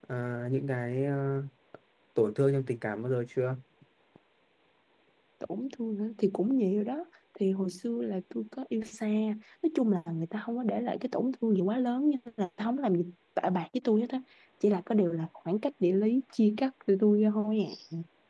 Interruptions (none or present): none